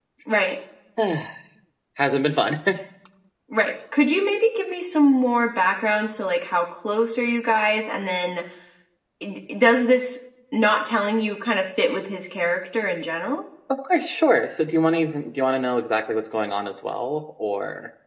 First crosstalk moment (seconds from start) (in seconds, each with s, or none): none